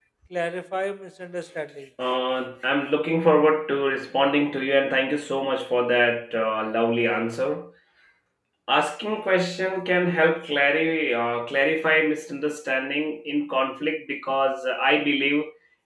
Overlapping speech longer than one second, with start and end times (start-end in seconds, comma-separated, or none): none